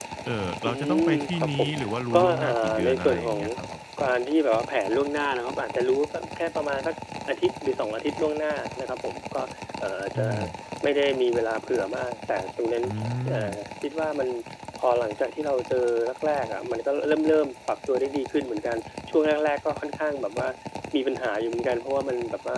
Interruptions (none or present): present